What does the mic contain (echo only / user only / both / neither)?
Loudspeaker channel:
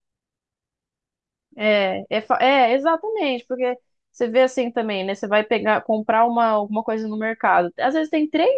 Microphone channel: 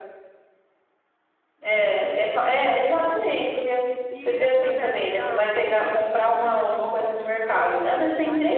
both